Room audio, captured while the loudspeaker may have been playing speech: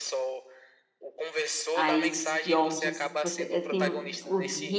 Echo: present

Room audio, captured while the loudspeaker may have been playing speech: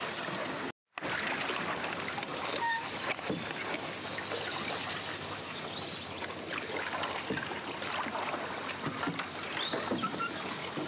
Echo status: none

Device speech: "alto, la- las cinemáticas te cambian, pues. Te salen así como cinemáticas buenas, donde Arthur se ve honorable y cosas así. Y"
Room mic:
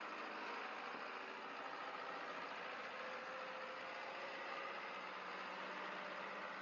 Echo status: none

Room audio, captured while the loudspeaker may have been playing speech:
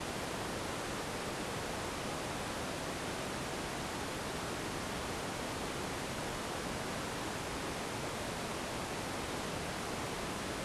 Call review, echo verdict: none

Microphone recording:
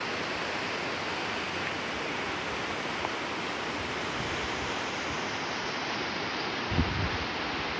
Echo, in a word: none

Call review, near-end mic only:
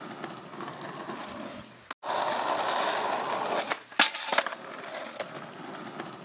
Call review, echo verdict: none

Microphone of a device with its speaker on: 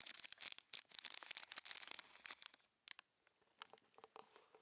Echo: none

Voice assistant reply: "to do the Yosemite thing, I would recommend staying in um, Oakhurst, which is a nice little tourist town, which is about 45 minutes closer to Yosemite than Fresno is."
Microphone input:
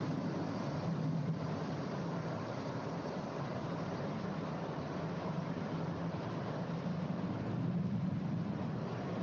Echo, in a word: none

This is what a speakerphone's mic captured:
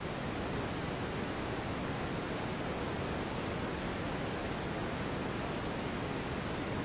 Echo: none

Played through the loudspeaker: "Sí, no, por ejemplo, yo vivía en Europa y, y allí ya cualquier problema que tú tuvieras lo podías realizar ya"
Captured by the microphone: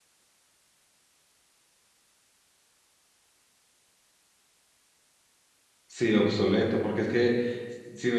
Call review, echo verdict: none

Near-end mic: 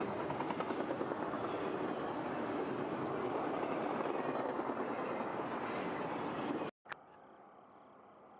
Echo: none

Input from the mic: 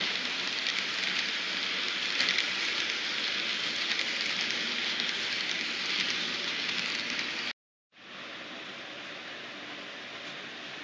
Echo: none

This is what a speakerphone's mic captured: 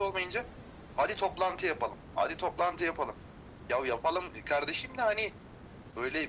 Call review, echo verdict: present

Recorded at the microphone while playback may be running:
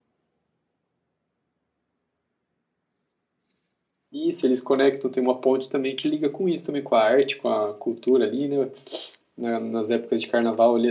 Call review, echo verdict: none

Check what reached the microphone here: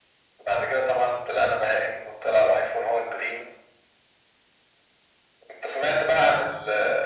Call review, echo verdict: present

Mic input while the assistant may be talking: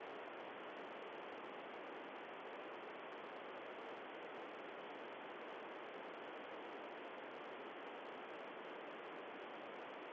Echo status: none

